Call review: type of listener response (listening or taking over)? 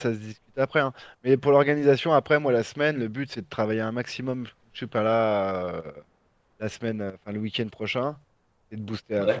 listening